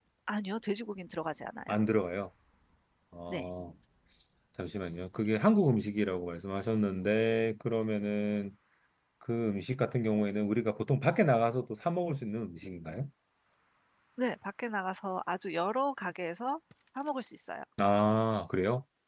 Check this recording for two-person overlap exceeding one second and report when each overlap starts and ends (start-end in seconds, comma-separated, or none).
none